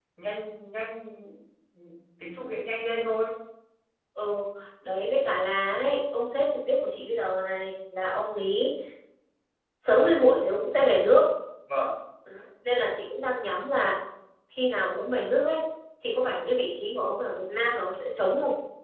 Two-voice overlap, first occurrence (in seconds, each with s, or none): none